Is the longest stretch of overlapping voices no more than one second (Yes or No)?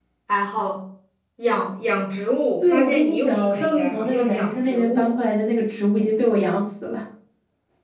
No